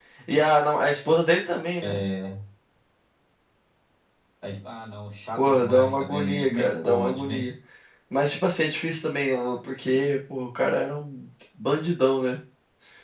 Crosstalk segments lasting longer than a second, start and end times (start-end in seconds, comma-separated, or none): 5.4-7.3